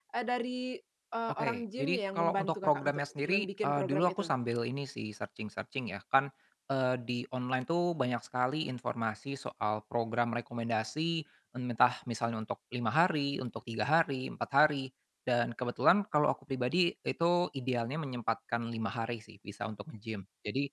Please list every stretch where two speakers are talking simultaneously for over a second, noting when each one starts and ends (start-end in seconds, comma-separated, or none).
1.3-4.3